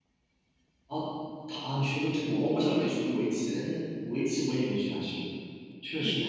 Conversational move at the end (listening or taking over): taking over